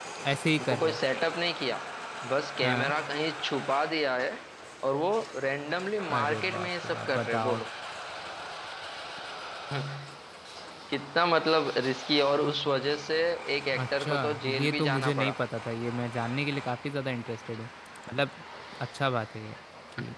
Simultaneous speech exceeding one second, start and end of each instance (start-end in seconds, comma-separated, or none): 6.2-7.6, 13.7-15.3